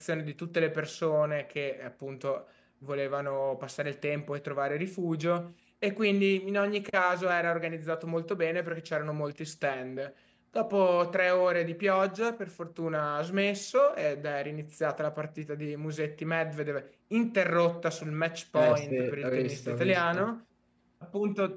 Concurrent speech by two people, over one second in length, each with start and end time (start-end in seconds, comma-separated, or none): 18.6-20.2